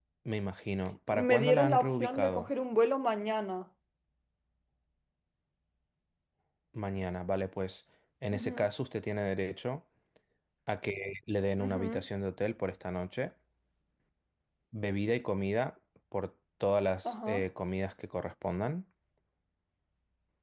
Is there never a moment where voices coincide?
No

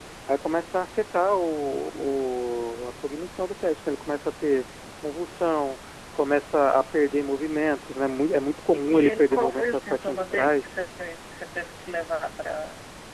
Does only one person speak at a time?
No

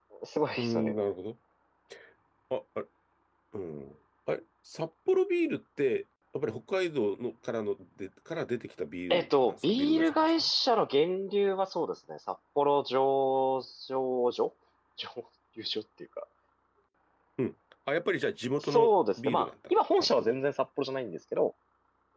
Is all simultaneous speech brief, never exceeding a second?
No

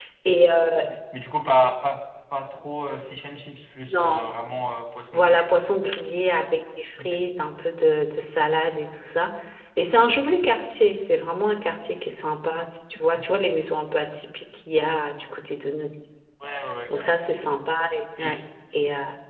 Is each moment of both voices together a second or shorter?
Yes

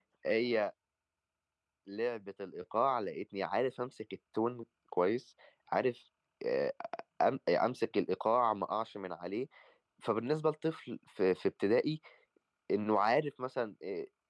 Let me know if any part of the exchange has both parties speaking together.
No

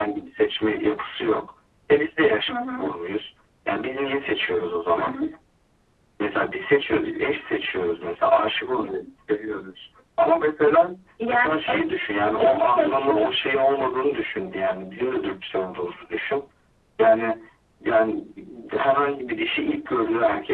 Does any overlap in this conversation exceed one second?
Yes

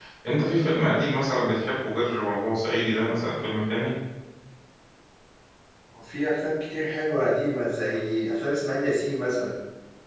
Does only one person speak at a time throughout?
Yes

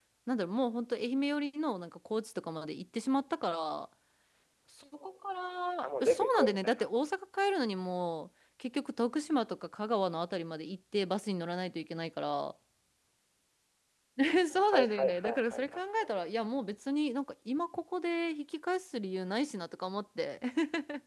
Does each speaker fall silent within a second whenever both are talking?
No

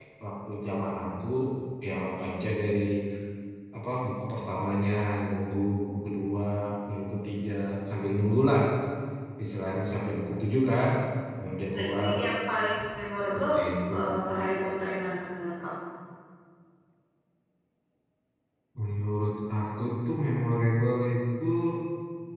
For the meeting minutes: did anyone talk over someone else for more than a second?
No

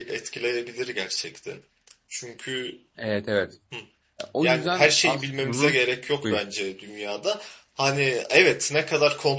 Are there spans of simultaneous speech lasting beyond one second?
Yes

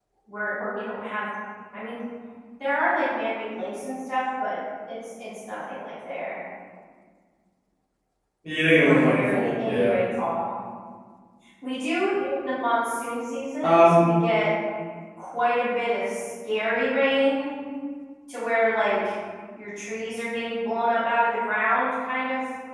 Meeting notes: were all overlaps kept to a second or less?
No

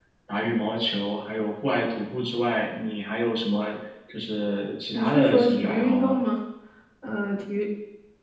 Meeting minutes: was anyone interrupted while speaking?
Yes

